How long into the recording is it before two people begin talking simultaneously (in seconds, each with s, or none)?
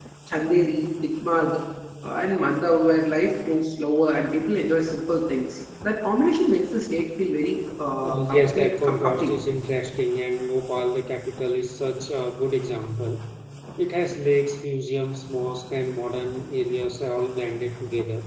8.0 s